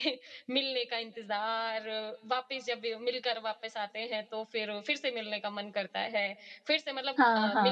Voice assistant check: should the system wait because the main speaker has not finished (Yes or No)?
Yes